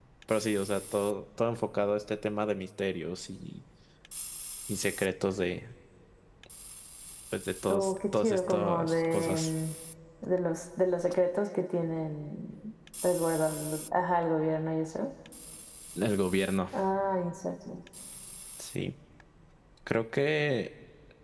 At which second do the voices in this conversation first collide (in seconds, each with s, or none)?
7.7 s